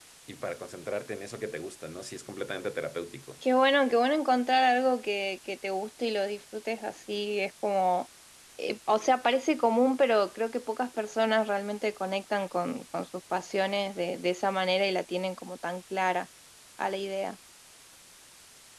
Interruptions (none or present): none